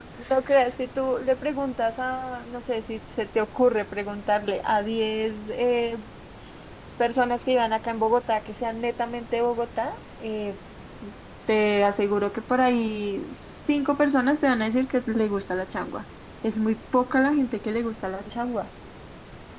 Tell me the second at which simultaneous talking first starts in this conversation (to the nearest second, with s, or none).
none